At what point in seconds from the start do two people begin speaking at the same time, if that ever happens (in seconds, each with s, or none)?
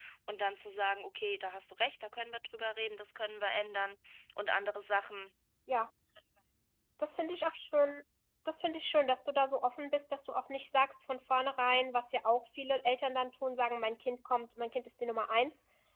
none